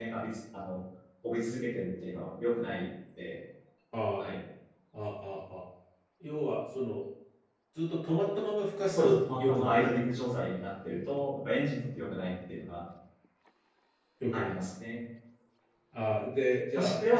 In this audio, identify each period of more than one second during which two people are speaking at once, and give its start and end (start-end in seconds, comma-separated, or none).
8.9-10.2